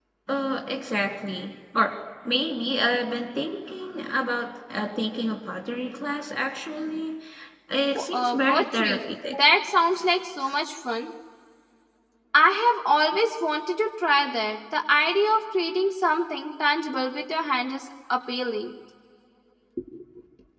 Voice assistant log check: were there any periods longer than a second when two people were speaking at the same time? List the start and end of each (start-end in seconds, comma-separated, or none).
7.9-9.3